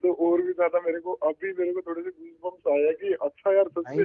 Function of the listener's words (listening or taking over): listening